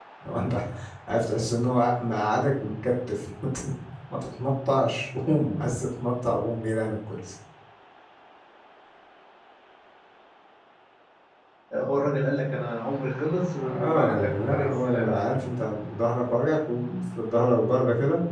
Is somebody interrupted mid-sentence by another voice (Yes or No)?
Yes